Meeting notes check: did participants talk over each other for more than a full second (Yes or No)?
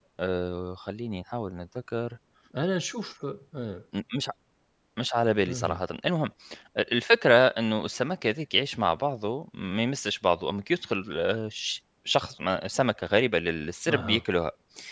No